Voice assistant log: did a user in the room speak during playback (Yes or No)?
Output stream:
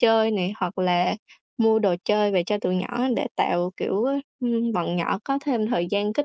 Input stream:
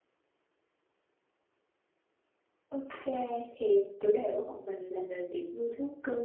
Yes